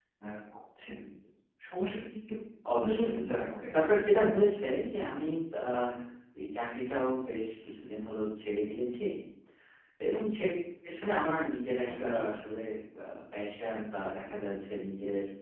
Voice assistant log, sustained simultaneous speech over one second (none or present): none